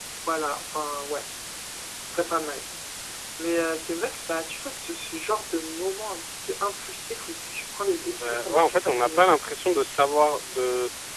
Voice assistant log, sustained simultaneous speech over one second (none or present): present